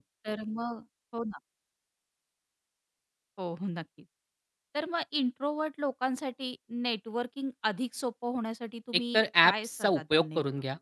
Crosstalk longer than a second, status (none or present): present